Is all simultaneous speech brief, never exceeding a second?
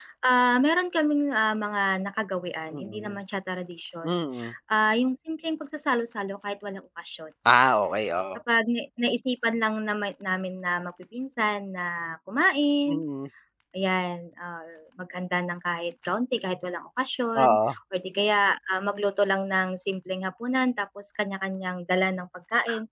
Yes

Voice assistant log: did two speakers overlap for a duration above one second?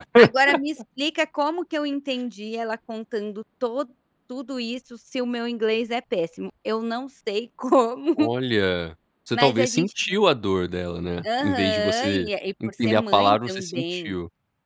Yes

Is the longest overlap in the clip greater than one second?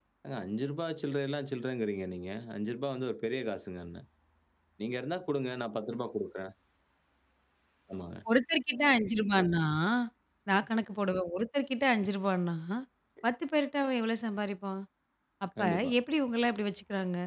No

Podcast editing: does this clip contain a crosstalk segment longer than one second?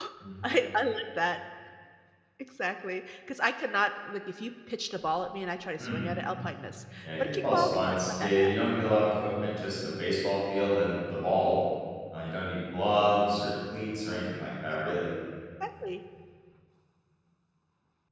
Yes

